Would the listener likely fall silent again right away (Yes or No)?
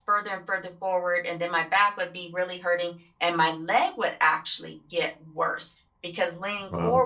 Yes